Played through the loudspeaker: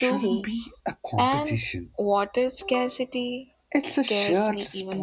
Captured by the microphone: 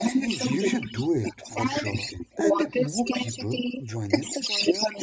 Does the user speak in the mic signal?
Yes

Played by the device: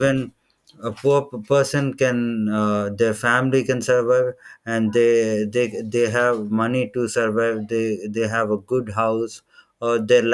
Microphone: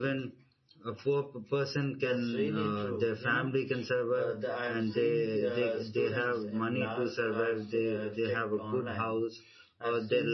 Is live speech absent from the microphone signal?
No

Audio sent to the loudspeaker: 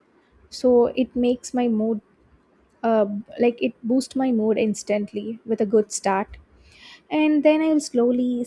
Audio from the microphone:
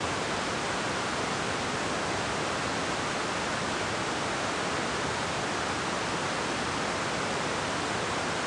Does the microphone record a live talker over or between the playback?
No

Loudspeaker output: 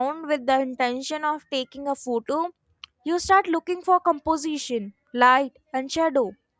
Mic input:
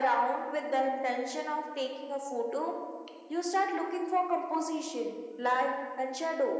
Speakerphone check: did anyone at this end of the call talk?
No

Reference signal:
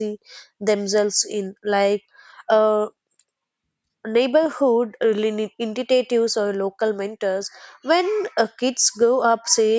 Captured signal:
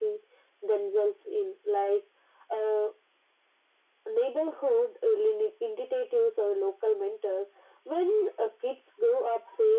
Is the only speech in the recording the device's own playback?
Yes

